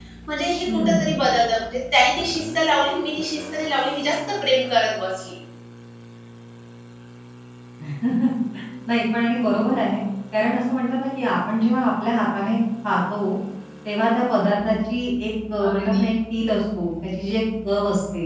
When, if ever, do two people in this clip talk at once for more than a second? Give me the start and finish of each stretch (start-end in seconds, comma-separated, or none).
none